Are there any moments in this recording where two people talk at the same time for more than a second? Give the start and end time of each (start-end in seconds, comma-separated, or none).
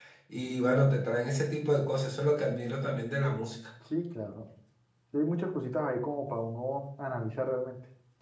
none